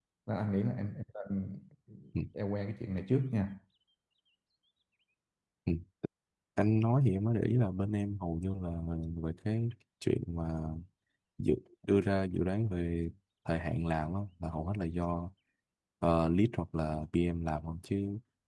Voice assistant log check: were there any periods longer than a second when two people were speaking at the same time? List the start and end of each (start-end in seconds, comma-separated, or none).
none